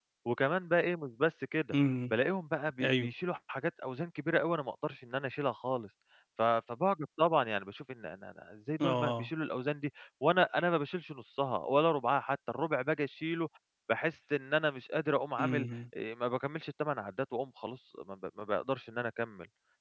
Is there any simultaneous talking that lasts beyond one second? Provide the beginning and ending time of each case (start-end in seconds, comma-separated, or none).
none